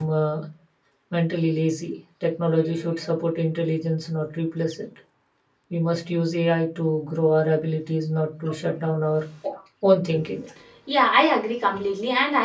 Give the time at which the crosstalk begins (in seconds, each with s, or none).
none